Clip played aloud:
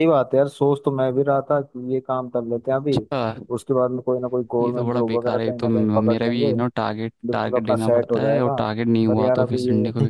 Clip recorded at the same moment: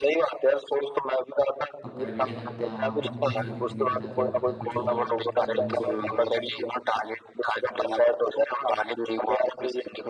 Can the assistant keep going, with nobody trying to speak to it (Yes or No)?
No